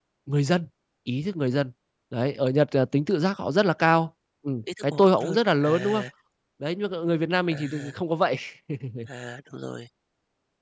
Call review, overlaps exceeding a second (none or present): present